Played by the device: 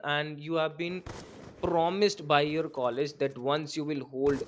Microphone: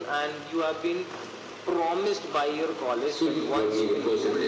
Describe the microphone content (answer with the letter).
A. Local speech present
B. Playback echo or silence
A